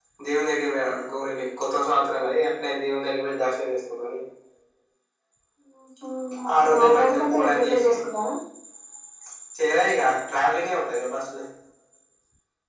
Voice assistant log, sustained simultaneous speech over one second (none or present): present